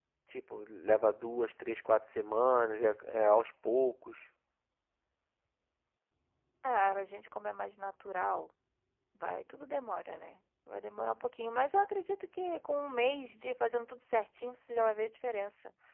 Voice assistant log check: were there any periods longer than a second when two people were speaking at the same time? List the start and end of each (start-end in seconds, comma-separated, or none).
none